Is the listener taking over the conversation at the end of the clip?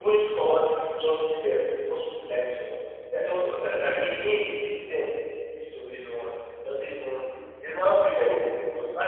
No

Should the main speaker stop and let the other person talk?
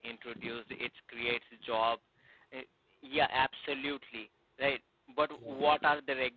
No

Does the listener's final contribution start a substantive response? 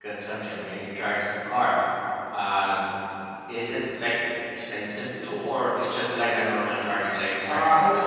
Yes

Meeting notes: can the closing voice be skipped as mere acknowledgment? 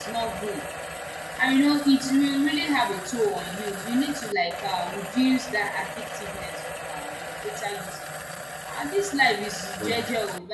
Yes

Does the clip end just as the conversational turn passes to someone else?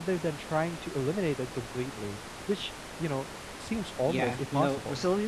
Yes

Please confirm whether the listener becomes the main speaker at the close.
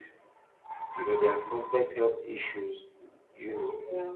No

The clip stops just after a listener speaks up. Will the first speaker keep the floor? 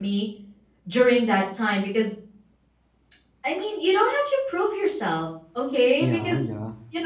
Yes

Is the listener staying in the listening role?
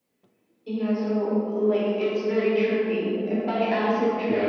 Yes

